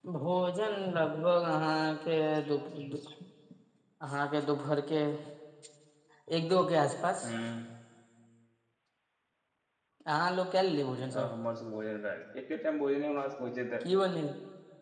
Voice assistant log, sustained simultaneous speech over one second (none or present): none